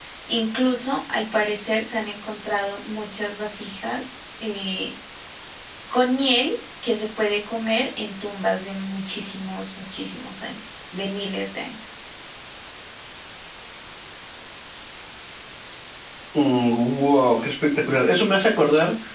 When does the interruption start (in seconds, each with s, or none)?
none